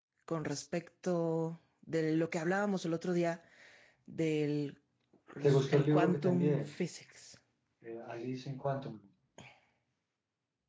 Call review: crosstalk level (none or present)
present